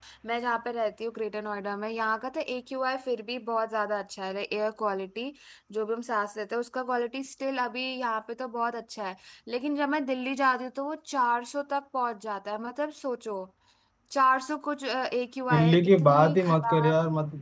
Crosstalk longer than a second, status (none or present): present